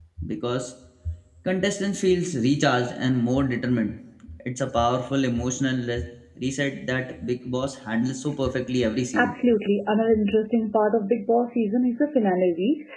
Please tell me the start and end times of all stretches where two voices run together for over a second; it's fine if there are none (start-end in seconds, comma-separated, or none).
none